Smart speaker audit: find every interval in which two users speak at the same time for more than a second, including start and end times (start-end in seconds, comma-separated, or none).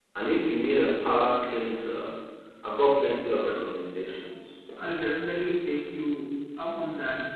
none